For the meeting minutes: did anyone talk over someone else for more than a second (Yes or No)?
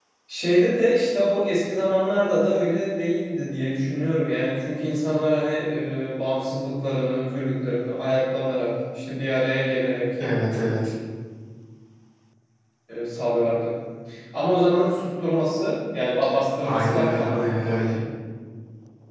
Yes